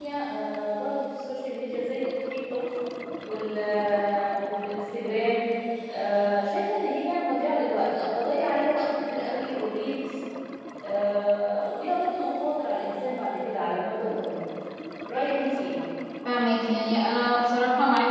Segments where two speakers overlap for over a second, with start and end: none

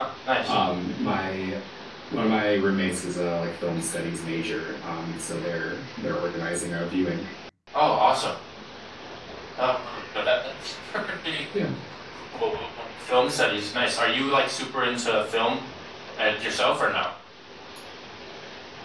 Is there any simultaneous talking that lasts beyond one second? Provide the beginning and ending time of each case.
none

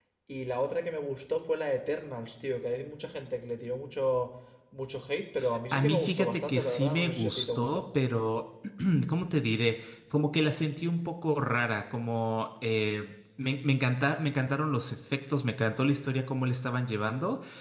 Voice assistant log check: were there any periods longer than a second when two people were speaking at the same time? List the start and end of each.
5.7-7.9

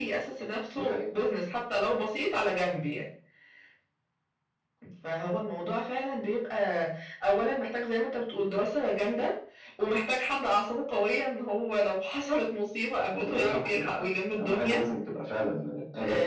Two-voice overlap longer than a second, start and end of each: 13.1-14.8

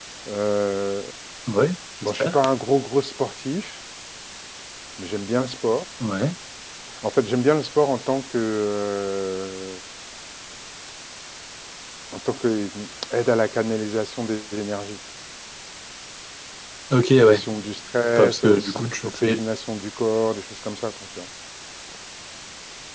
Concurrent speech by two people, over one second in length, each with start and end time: 18.2-19.4

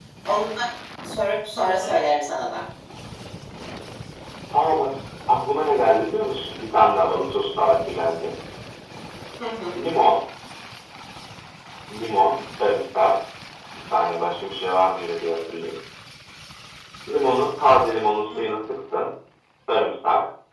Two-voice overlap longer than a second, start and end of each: none

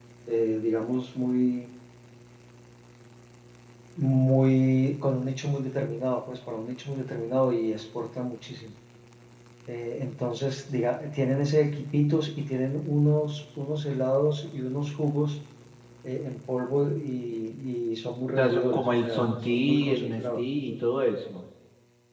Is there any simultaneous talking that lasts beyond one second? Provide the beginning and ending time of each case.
18.4-20.7

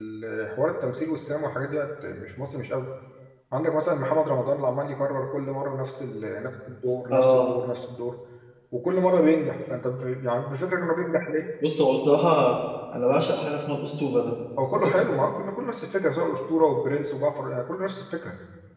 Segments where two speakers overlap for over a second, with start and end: none

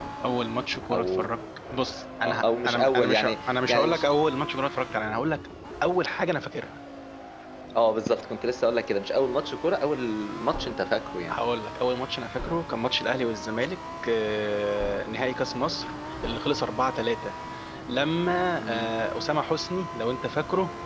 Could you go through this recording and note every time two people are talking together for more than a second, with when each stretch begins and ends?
2.5-4.0

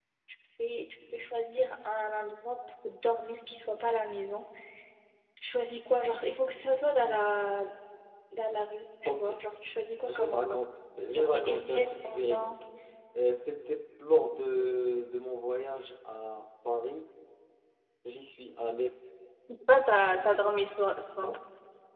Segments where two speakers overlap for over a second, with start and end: 11.1-12.6

